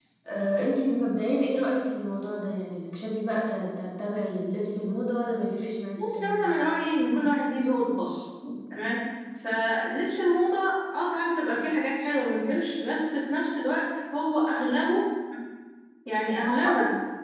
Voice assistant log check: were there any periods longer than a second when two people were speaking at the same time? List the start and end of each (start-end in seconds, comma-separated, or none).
none